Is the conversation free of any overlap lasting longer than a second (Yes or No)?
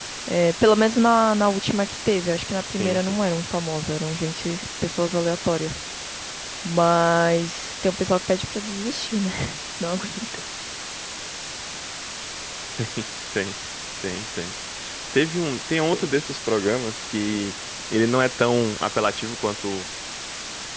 Yes